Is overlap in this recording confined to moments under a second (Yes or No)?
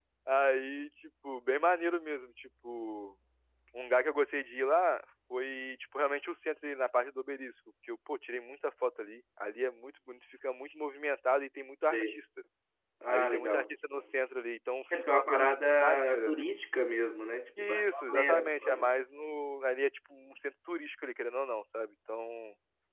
No